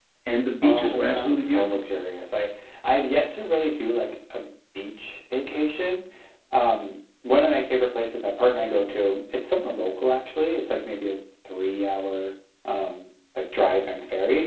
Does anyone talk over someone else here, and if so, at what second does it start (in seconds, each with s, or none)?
0.6 s